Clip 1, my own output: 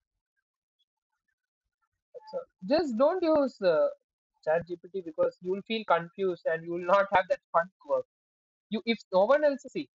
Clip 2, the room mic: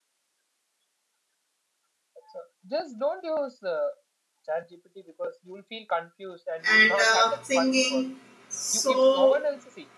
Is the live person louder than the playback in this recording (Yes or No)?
Yes